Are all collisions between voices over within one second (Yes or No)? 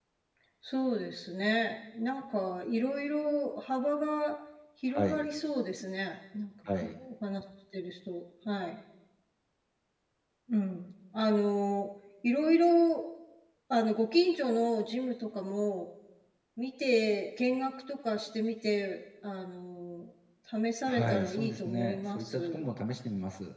No